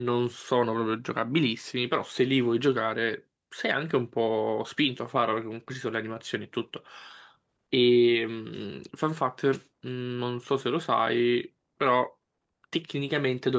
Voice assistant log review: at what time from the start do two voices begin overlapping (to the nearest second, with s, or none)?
none